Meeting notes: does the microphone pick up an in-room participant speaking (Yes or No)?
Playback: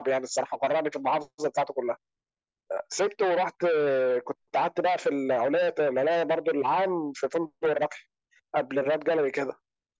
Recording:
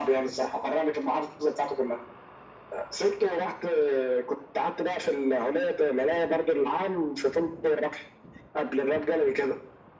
No